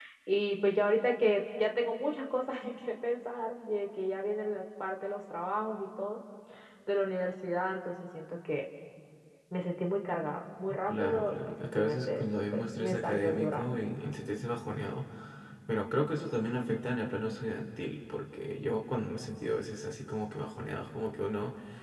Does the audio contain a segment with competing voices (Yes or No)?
Yes